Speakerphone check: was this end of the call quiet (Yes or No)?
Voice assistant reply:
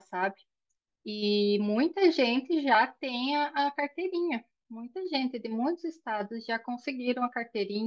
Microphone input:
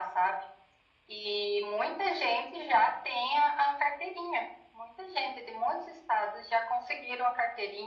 Yes